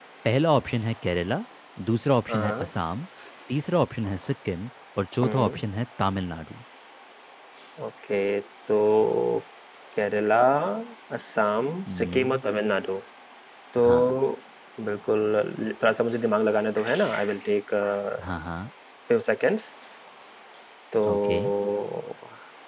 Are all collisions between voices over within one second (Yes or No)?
Yes